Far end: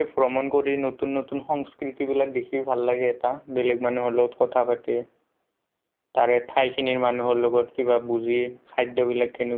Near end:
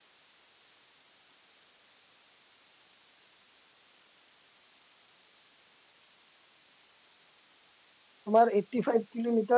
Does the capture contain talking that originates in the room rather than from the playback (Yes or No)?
Yes